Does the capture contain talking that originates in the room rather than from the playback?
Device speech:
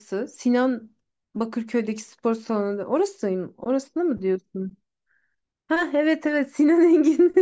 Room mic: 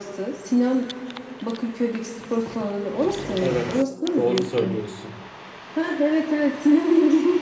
Yes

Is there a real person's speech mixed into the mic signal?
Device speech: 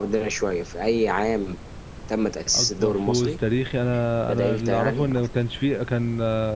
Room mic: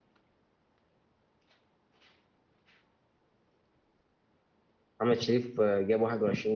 Yes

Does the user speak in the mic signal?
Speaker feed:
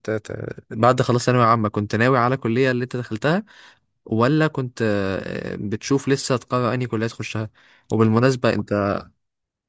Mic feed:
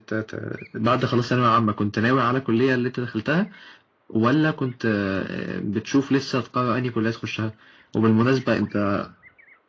No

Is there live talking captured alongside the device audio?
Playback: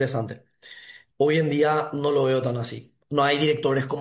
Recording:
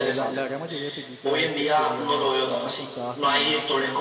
Yes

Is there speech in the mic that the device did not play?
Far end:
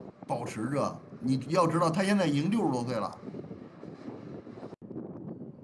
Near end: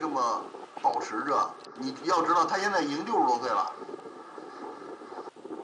No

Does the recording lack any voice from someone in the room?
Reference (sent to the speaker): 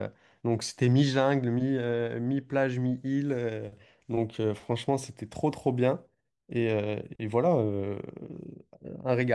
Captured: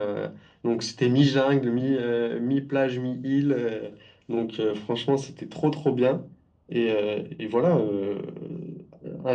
Yes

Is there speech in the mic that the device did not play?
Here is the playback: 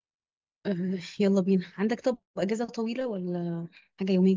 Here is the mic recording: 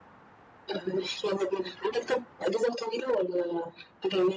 No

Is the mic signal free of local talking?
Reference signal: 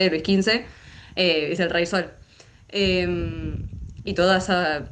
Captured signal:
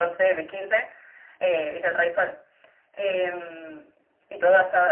Yes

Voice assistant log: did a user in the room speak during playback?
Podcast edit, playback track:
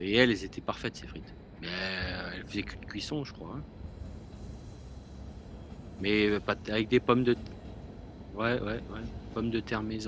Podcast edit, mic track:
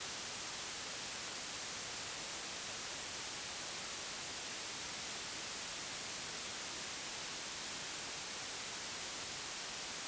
No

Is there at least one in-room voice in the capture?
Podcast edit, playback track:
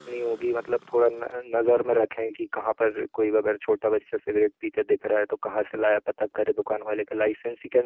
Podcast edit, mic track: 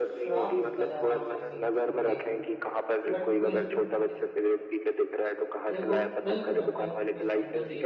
Yes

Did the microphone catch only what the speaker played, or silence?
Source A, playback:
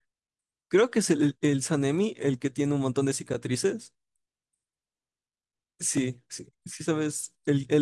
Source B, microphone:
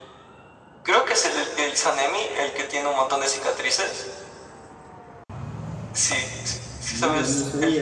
No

